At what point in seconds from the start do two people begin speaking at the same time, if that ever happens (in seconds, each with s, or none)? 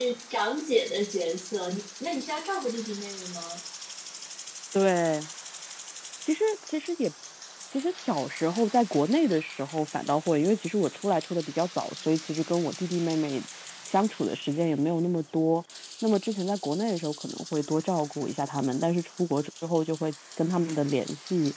none